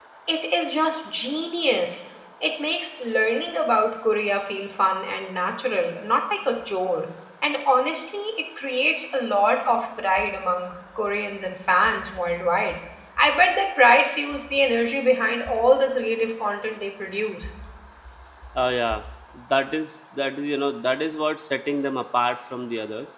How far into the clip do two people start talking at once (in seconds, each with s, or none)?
none